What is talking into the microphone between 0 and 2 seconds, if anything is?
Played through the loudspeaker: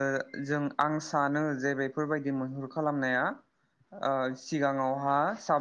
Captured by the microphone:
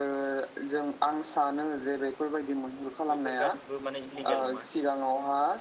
echo only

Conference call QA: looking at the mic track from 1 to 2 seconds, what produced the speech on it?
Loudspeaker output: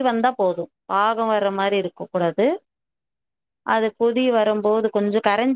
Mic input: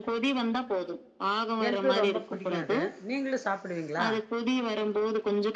both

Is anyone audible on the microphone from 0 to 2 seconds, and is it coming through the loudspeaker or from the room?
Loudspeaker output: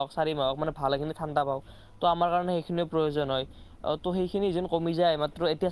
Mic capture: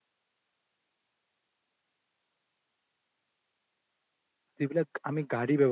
neither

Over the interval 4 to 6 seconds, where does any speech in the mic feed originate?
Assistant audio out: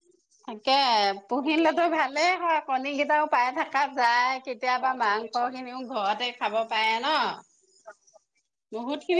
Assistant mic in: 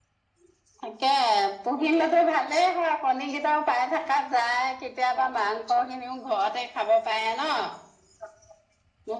echo only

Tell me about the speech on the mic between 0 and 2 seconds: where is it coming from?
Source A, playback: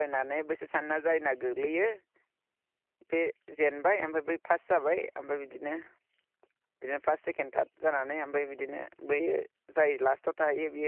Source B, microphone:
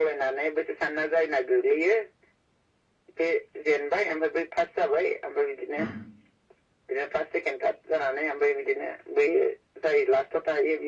echo only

